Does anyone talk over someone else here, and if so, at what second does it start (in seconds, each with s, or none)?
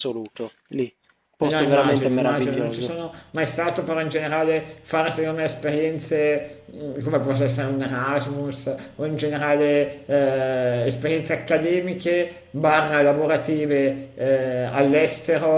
1.4 s